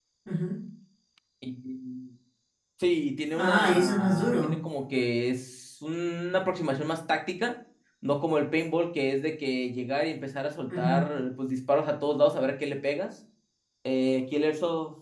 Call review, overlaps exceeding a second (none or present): present